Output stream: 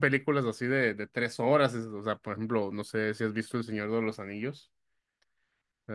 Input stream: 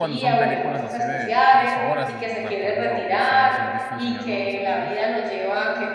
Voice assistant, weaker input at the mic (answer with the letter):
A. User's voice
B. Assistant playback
B